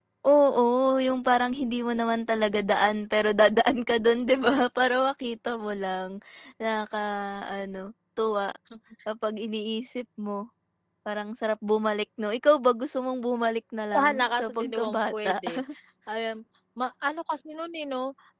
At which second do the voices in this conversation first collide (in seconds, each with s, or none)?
13.9 s